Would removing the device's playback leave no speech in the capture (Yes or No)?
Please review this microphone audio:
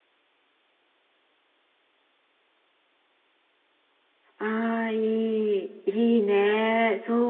No